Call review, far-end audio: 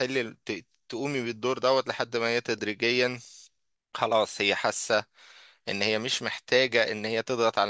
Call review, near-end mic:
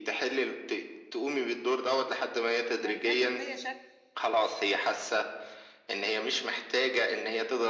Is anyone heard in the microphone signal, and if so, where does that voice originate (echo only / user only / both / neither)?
both